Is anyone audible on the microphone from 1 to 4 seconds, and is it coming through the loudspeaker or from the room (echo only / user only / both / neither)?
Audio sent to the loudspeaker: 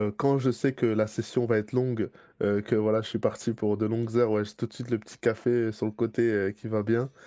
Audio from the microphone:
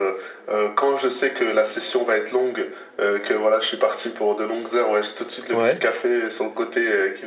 echo only